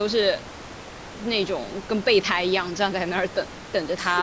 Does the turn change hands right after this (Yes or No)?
Yes